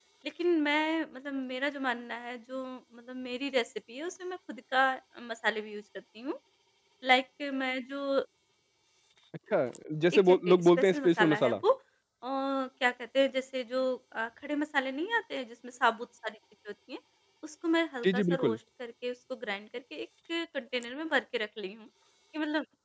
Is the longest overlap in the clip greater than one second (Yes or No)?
Yes